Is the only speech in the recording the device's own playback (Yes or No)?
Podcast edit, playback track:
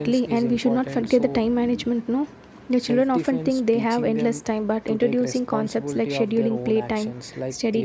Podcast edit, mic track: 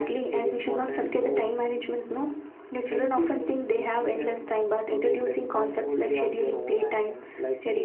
Yes